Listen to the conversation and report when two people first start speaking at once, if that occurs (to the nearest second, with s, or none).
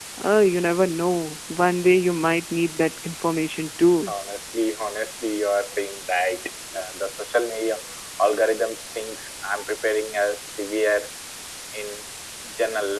none